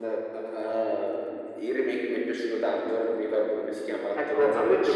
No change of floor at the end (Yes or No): No